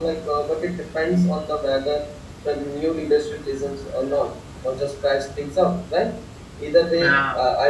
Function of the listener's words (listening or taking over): listening